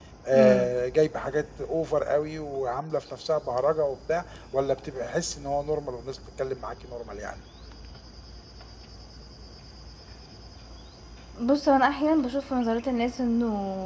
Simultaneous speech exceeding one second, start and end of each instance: none

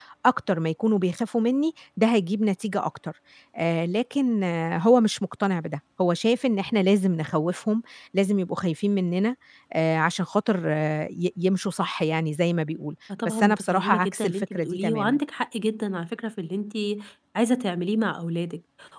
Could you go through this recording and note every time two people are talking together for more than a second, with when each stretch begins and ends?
13.2-15.2

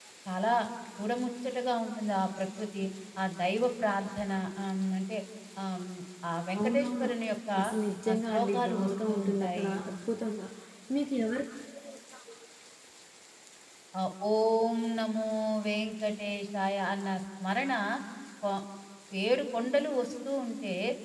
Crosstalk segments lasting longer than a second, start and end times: 8.1-9.7

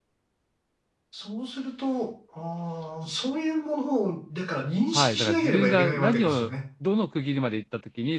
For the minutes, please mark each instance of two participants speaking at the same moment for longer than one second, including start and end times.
4.9-6.5

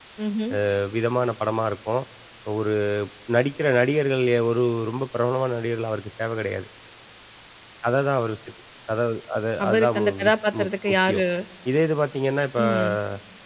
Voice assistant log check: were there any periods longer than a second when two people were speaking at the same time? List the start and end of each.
9.6-11.2

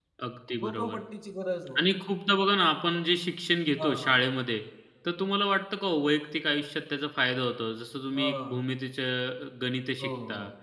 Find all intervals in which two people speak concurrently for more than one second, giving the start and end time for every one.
none

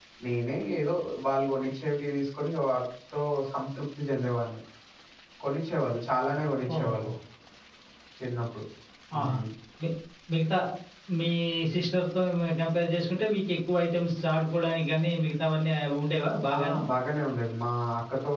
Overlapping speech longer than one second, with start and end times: none

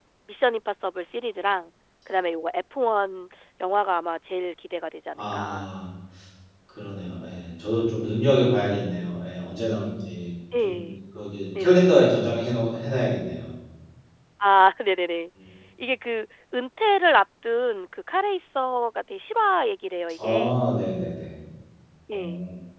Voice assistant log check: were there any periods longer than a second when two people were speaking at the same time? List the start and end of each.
none

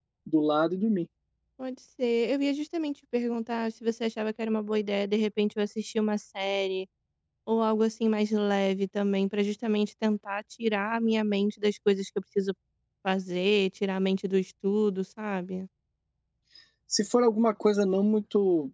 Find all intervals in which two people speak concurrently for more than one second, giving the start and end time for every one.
none

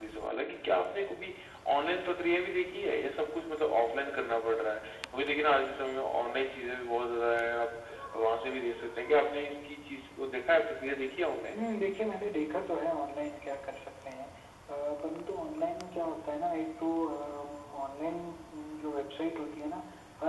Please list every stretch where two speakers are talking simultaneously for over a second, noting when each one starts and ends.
none

